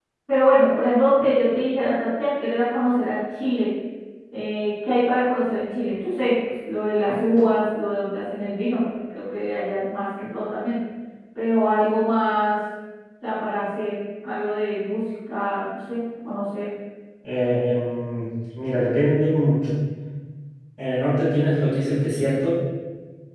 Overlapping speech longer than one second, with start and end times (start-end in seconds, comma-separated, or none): none